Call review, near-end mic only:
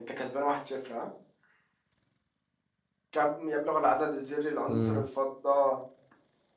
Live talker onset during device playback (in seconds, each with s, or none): 4.7 s